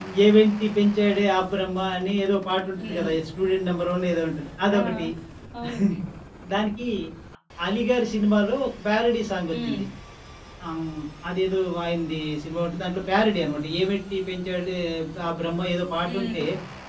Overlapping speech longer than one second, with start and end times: none

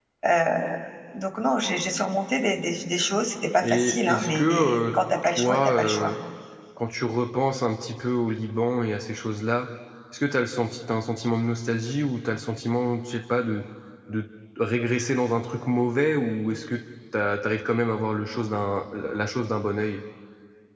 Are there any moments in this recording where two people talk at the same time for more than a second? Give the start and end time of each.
3.6-6.1

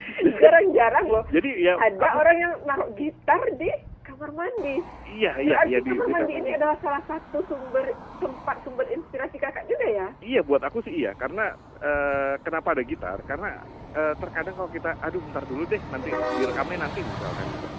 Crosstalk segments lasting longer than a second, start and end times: 5.4-6.7

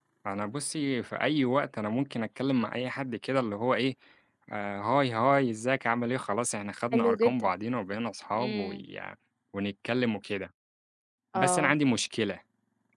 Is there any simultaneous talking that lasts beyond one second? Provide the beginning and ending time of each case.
none

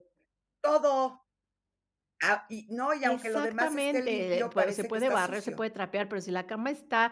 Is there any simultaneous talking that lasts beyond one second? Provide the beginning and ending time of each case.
3.0-5.6

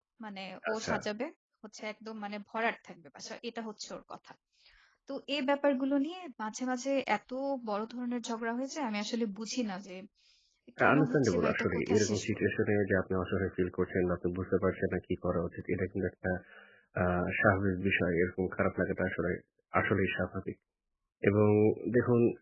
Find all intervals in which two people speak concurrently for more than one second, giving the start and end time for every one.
10.8-12.4

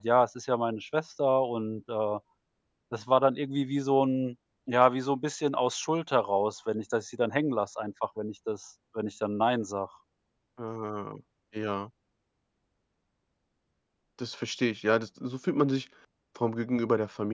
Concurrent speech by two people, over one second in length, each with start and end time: none

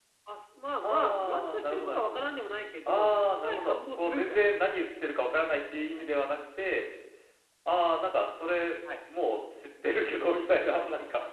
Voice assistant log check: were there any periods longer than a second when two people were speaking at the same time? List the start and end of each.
0.8-2.2, 2.9-4.4

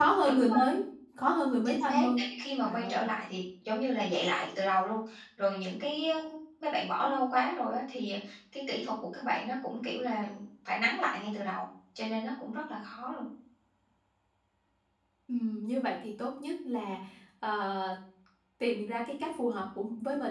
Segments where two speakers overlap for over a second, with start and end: none

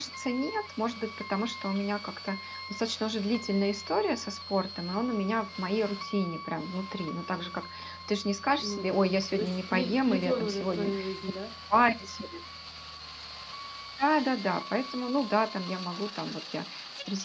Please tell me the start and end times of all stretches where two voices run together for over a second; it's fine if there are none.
8.6-11.1

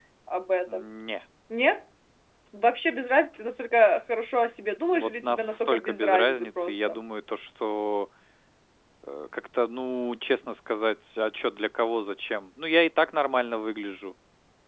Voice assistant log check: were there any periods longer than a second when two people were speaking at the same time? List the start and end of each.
4.9-7.0

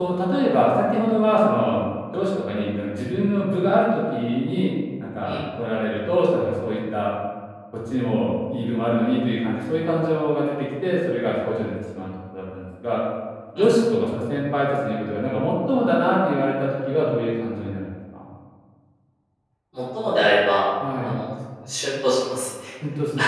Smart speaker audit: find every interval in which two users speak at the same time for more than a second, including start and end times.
none

